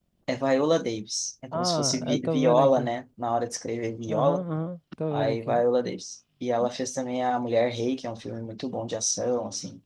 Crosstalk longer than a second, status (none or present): present